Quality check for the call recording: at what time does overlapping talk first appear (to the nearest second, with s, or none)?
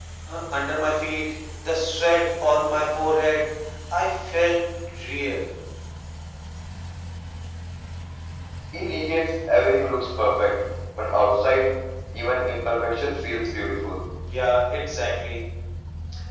none